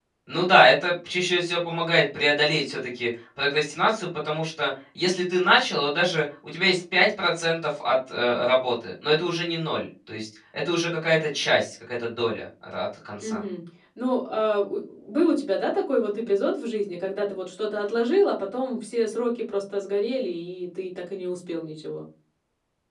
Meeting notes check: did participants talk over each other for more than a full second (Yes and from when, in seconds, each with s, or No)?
No